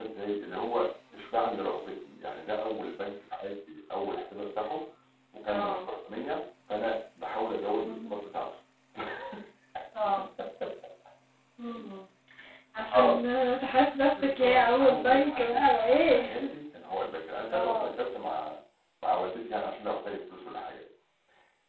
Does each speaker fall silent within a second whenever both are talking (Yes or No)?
No